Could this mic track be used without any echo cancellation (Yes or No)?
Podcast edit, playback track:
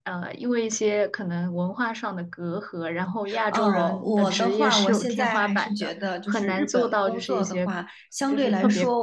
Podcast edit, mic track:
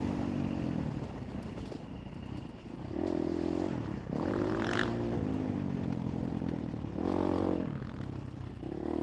Yes